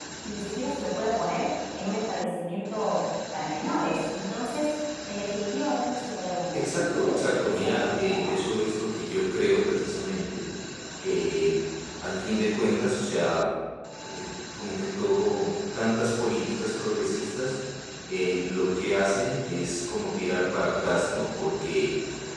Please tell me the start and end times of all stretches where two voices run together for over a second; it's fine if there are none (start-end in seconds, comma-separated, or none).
6.5-8.4